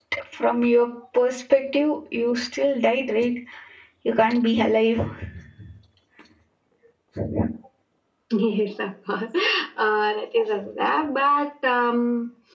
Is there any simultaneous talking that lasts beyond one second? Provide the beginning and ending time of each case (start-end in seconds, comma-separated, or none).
none